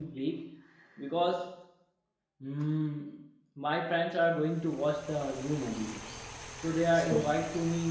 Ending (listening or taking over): listening